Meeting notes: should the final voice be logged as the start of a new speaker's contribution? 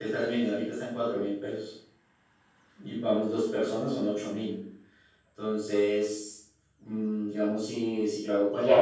Yes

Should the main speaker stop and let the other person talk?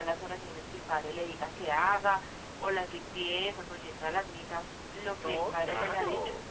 Yes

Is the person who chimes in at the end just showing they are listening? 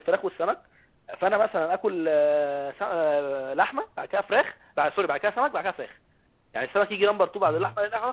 Yes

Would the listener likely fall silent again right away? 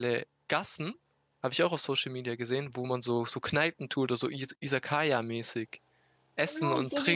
No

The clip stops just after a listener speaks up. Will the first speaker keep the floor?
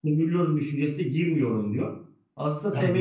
No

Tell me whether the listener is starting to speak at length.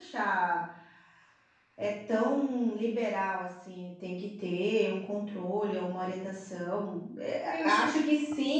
No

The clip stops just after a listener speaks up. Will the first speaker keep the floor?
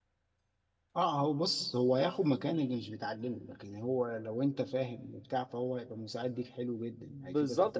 No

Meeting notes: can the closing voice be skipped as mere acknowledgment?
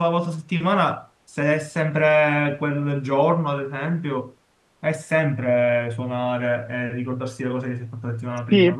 No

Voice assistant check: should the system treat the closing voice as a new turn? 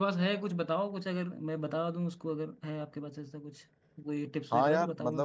Yes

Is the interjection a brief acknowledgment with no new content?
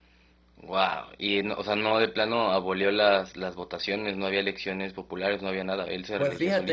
No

